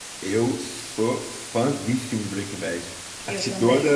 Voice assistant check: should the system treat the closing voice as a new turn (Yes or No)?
No